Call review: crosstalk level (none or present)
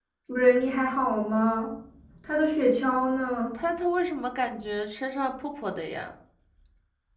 none